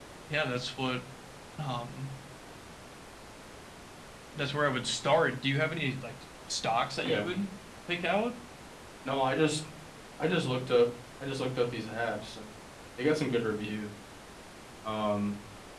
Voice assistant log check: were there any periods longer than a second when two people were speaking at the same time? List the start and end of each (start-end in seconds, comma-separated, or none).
none